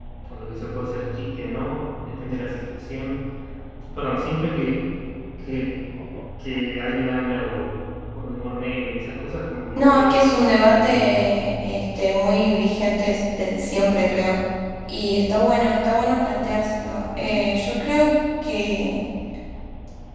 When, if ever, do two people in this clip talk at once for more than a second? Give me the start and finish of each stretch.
9.8-11.2

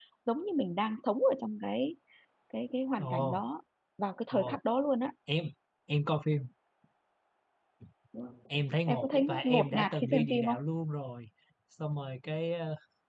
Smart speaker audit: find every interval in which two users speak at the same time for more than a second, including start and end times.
8.9-10.6

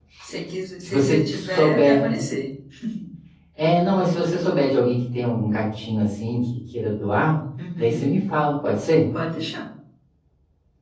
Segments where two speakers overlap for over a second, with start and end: 0.8-2.1

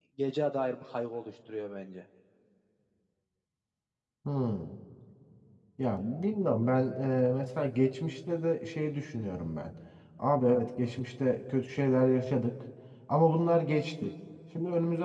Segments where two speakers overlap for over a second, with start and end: none

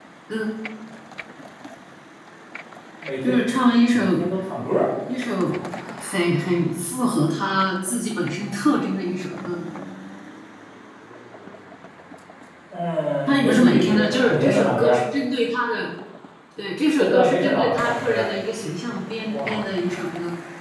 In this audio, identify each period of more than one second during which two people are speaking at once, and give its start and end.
13.3-15.0, 17.0-18.3

